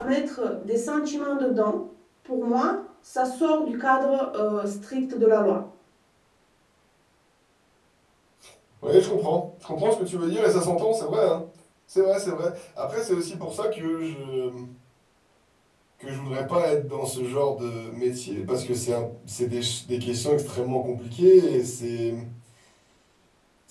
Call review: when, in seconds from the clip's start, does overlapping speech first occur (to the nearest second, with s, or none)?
none